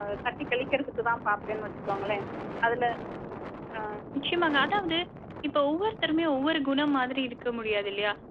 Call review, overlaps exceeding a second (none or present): none